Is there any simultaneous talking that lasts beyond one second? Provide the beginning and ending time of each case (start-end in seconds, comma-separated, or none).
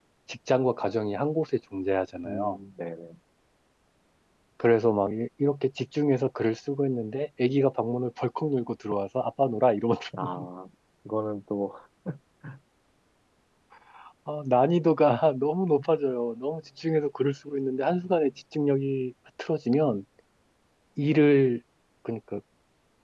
none